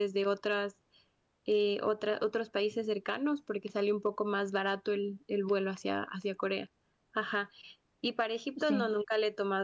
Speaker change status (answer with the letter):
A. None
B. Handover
A